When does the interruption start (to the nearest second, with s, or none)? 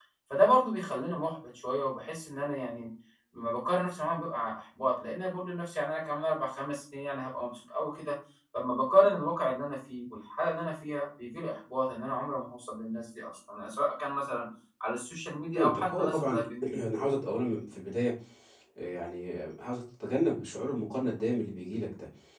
16 s